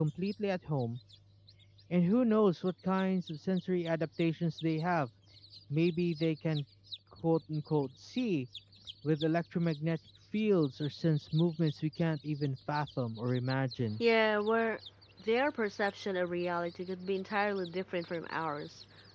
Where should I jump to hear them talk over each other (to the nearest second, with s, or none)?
none